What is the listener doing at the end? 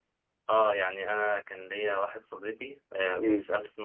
listening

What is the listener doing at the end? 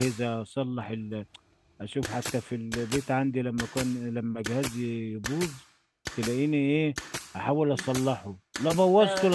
listening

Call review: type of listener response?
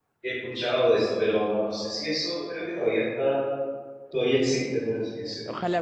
taking over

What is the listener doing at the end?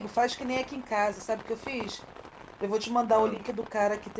listening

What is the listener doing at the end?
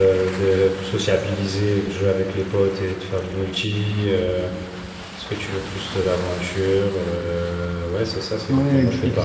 taking over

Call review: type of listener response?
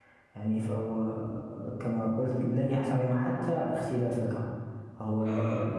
listening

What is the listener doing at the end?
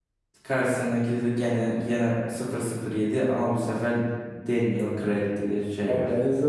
taking over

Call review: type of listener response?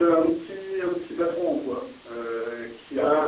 listening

